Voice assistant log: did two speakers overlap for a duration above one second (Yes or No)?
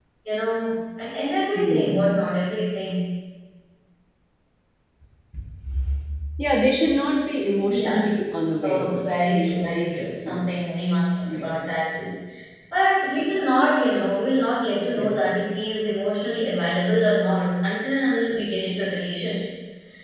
Yes